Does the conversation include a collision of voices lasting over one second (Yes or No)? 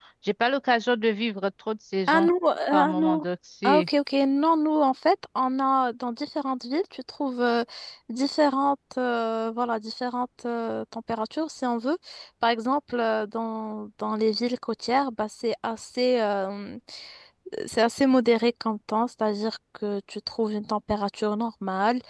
No